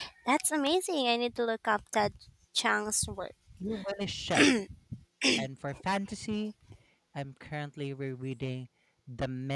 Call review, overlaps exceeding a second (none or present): none